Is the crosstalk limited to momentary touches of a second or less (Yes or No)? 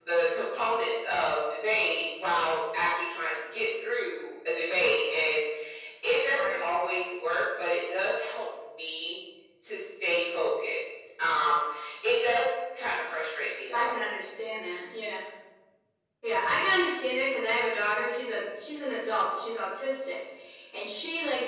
Yes